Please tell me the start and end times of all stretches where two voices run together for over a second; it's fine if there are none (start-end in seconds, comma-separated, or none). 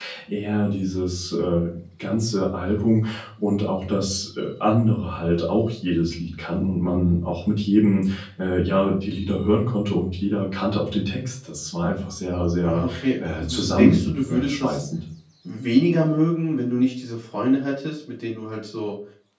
12.6-14.8